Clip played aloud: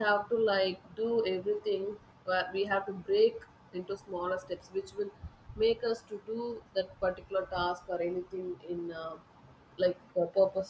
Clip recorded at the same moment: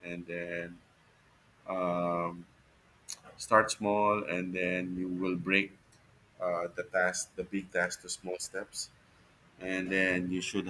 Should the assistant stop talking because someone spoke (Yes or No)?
Yes